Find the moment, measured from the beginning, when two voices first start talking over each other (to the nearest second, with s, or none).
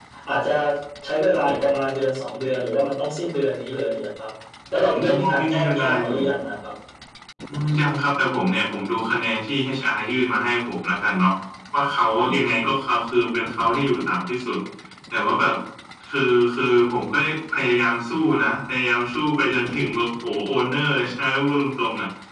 5 s